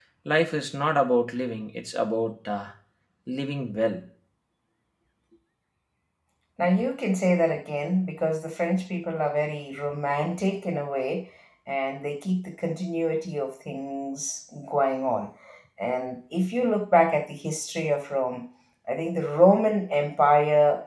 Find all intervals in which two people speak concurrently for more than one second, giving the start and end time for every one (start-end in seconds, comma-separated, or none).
none